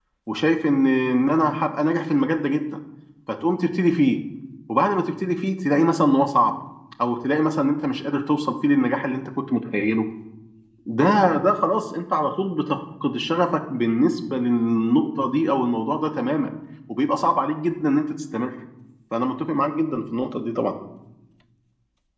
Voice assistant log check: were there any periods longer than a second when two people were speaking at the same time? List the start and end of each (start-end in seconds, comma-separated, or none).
none